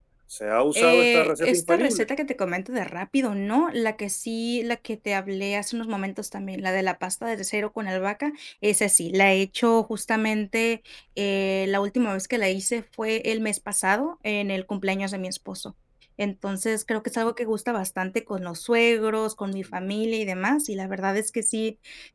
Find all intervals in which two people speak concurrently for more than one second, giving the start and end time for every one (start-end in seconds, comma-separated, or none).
0.8-2.0